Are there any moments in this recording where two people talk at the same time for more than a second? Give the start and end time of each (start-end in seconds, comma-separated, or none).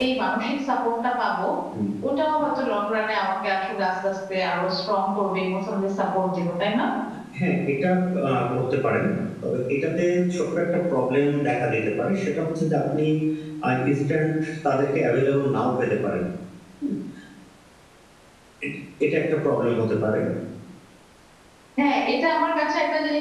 none